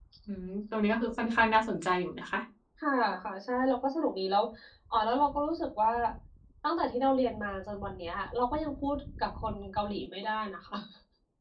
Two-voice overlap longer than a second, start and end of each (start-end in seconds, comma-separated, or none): none